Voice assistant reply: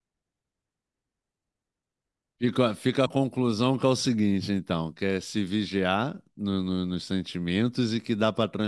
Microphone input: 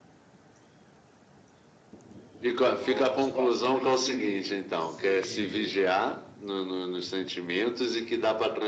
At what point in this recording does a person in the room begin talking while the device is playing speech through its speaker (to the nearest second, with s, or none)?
3 s